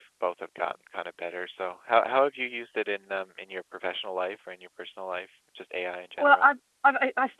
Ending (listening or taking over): taking over